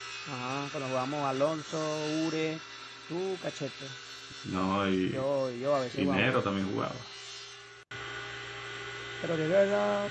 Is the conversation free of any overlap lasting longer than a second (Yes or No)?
Yes